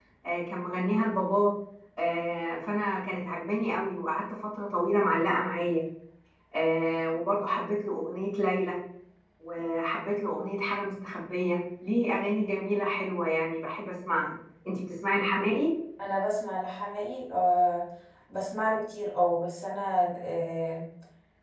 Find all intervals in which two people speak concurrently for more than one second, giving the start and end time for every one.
none

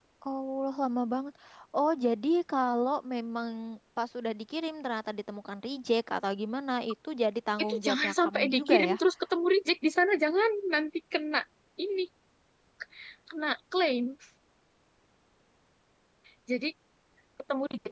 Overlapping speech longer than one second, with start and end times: 7.6-8.9

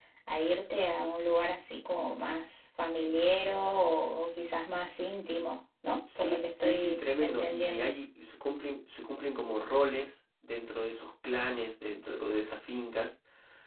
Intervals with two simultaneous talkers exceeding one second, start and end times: 6.2-7.9

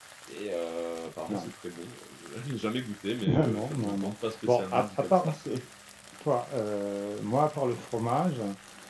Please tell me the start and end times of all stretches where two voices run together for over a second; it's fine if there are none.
3.3-5.2

